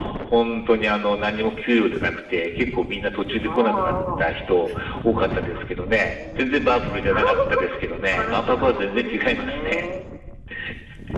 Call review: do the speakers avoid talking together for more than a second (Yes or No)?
No